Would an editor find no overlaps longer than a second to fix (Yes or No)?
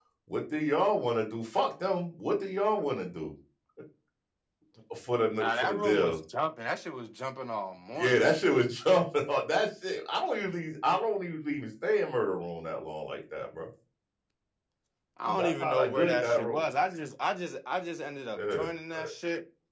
No